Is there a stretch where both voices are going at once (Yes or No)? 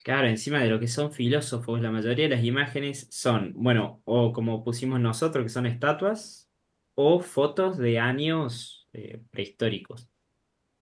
No